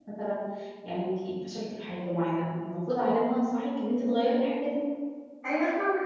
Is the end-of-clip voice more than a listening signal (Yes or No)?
Yes